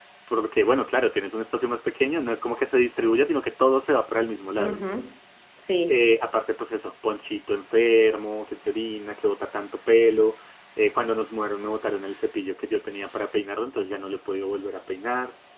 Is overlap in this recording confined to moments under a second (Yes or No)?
Yes